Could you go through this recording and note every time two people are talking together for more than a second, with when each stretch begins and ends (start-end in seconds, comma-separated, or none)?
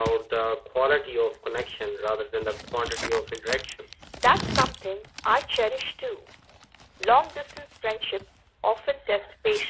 none